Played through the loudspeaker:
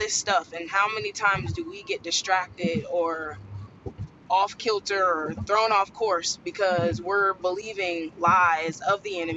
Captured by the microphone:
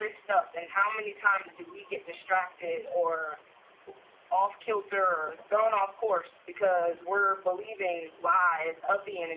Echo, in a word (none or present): present